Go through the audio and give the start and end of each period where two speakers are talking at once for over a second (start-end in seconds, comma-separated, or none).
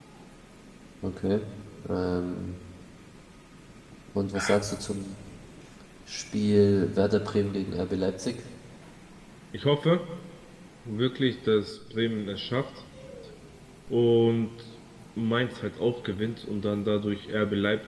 none